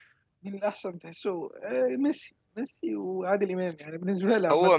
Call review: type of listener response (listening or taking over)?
taking over